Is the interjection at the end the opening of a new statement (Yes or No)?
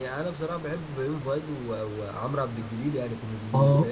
Yes